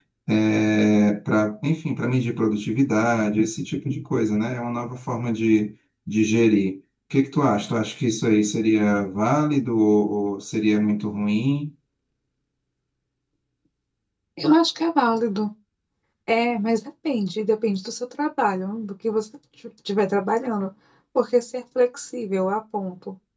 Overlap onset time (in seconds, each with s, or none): none